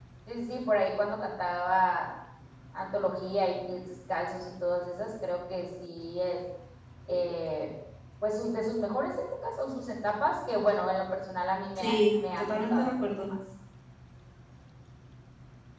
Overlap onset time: 11.8 s

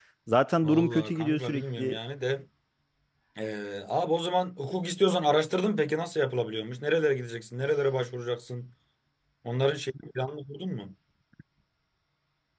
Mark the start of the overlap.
0.6 s

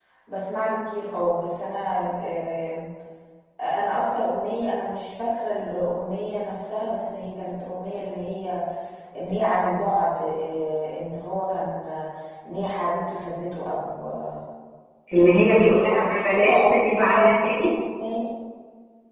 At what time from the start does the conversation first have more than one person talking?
15.5 s

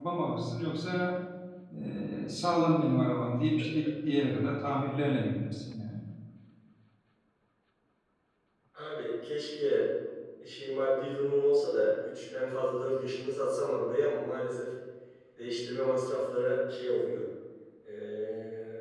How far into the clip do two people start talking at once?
none

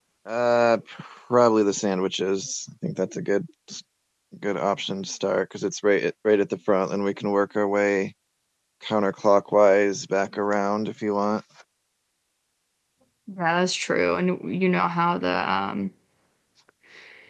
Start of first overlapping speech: none

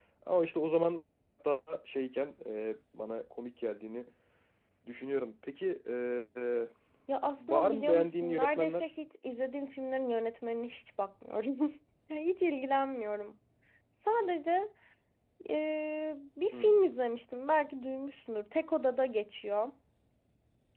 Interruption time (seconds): 7.4 s

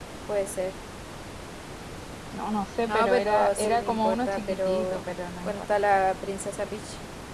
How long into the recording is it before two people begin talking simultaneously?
2.8 s

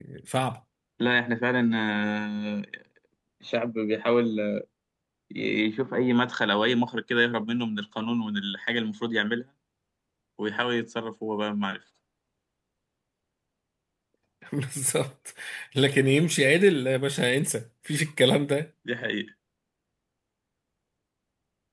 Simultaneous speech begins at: none

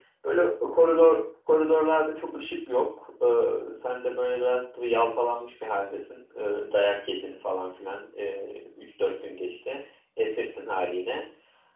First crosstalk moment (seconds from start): none

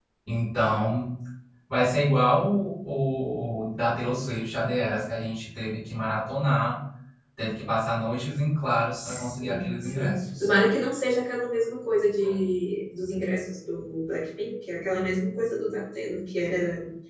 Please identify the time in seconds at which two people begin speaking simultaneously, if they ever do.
8.9 s

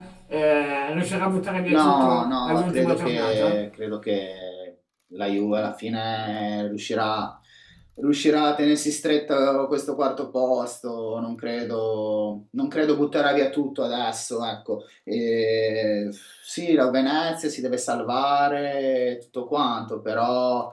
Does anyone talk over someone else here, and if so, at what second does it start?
1.7 s

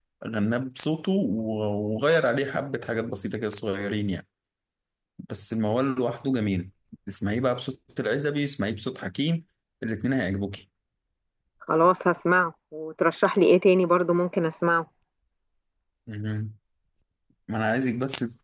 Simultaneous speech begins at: none

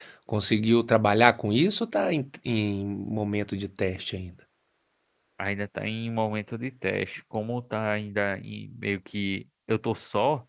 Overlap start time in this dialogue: none

